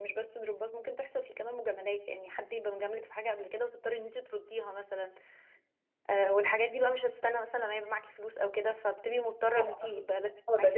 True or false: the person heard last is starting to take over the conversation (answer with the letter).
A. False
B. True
B